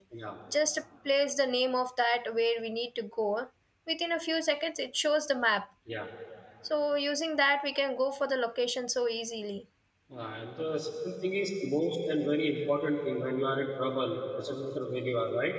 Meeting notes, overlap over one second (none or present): none